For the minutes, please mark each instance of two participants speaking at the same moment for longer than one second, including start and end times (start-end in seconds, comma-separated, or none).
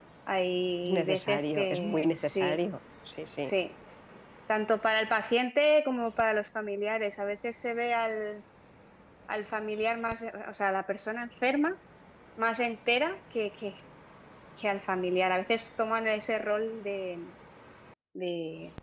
0.8-2.6